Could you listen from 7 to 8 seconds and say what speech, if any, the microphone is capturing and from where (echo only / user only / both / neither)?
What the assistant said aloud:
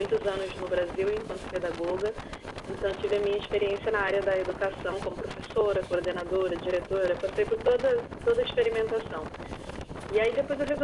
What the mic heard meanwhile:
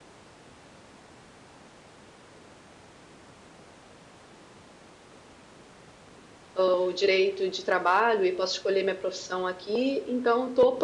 user only